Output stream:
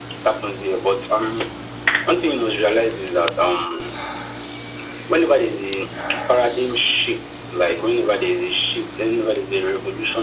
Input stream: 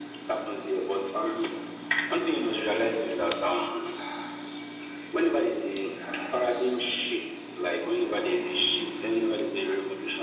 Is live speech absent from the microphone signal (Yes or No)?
Yes